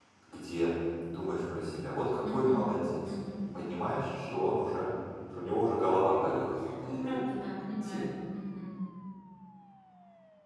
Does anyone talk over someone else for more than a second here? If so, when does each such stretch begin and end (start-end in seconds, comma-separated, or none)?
none